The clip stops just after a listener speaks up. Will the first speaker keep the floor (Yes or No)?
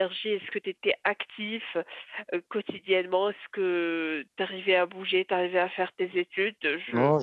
No